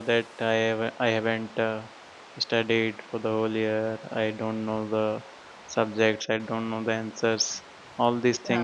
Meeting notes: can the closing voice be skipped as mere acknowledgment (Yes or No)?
Yes